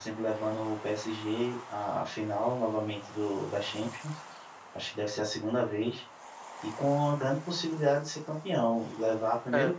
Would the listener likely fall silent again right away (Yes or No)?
Yes